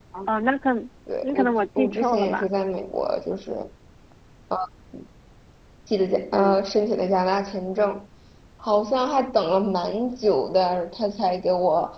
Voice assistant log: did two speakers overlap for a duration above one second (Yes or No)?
Yes